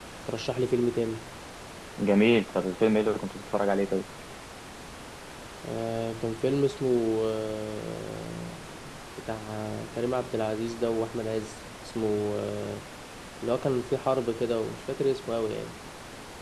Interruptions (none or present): none